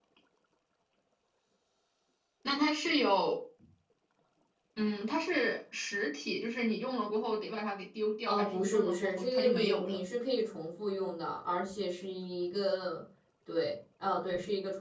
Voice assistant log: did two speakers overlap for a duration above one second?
Yes, from 8.3 s

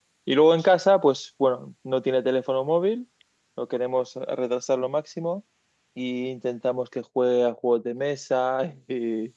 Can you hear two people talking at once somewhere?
No

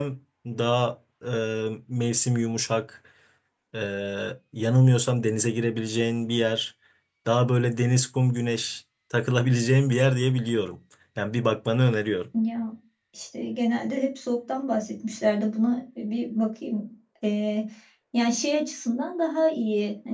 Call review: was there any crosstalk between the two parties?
No

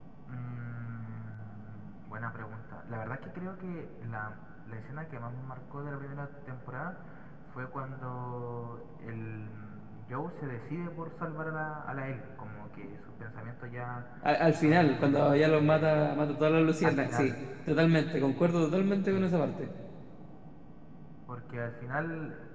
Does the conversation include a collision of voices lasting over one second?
Yes, from 14.6 s

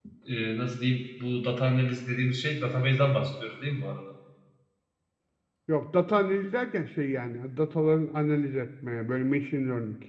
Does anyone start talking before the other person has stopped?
No

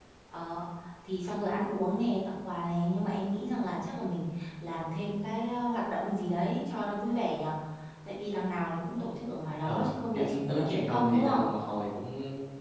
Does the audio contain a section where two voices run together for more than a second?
Yes, from 9.6 s

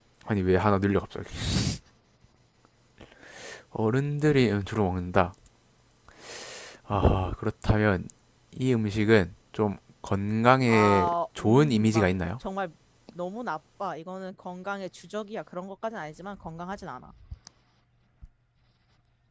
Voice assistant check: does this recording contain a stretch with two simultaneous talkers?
Yes, from 10.7 s

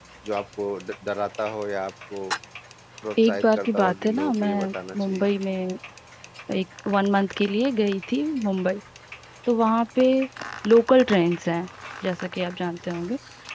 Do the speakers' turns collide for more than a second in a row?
Yes, from 3.2 s

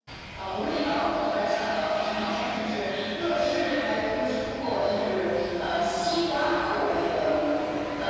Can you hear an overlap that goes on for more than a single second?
No

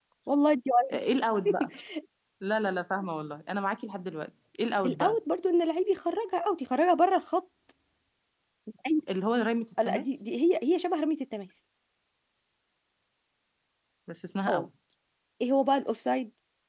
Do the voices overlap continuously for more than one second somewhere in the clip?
No

